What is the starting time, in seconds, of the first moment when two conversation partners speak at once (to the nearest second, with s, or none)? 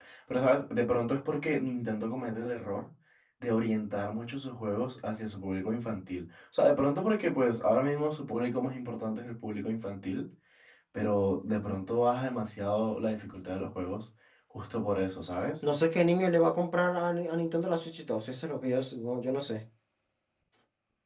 none